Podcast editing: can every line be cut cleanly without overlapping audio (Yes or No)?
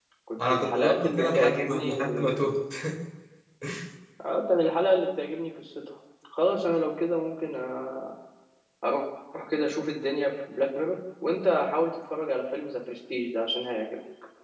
No